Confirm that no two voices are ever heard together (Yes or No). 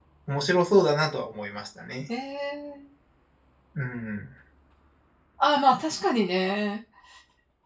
Yes